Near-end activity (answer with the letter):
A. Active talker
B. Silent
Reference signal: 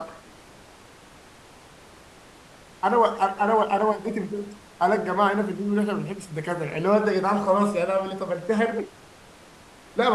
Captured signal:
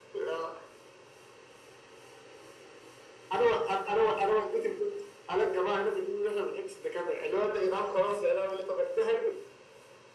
B